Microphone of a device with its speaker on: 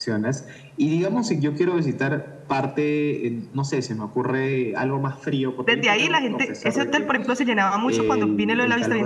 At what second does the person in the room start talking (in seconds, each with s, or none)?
5.6 s